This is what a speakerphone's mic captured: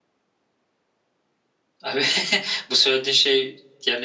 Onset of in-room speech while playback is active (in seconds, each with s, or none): 1.8 s